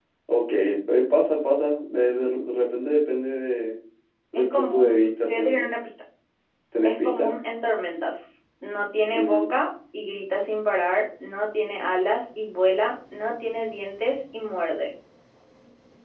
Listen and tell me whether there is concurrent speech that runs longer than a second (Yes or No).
Yes